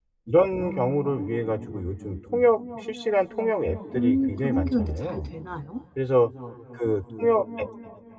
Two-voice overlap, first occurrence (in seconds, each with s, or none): 3.9 s